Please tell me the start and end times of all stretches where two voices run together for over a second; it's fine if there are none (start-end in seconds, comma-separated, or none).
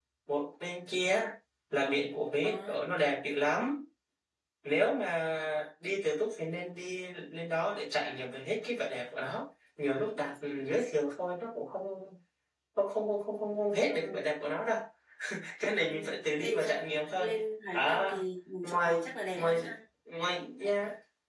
none